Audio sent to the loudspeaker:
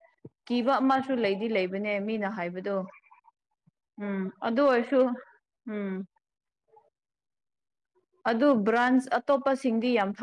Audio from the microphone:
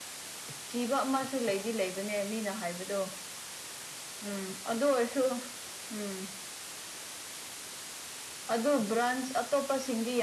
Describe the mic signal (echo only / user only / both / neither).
echo only